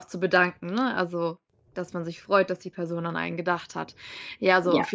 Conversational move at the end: listening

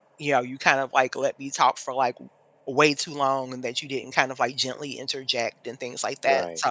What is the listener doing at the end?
listening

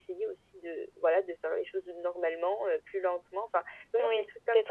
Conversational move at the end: taking over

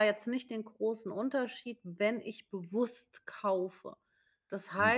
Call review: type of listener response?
taking over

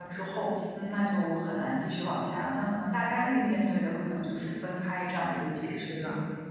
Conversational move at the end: taking over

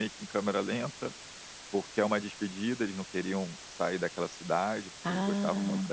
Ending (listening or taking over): listening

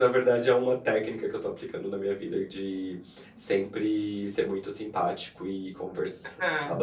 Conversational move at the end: listening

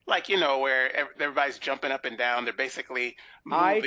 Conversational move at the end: taking over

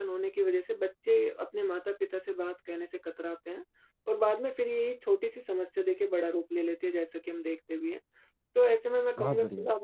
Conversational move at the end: listening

